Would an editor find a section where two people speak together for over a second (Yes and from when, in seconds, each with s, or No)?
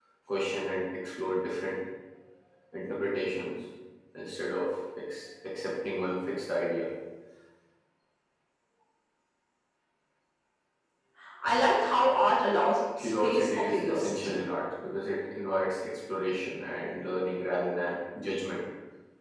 Yes, from 13.0 s